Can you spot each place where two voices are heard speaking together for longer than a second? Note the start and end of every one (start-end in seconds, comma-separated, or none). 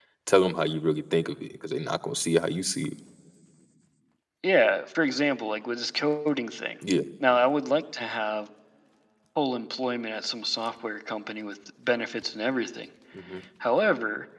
none